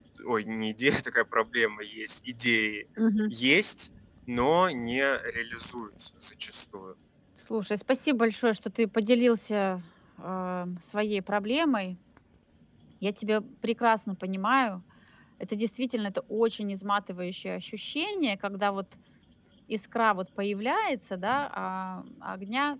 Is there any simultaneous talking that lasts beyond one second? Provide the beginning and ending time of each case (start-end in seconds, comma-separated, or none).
none